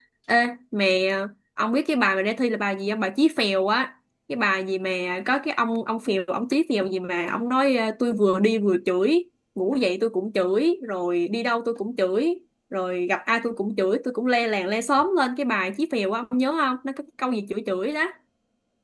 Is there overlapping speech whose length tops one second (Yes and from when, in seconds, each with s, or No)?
No